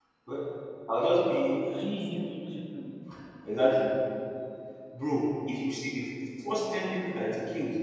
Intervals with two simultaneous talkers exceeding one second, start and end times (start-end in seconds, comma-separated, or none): none